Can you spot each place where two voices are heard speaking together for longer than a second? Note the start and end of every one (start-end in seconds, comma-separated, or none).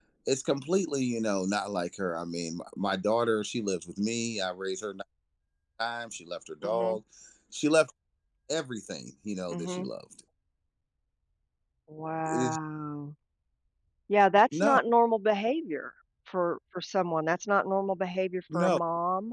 none